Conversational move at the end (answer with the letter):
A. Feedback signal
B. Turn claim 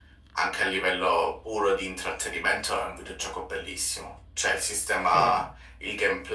A